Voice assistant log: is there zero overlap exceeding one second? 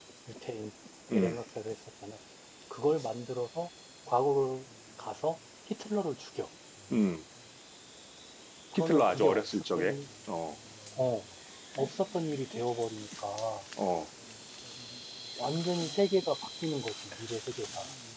No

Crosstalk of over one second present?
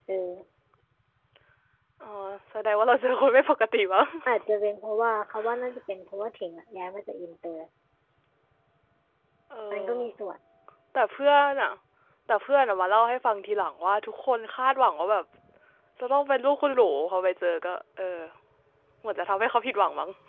No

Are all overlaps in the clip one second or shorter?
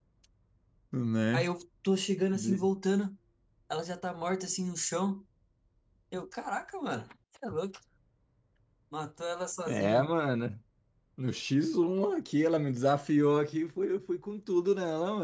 Yes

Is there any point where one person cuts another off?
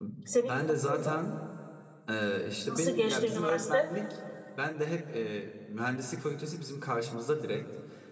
Yes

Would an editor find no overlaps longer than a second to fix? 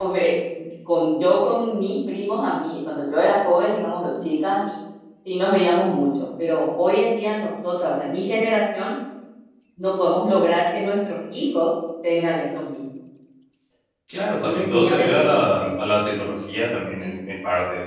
No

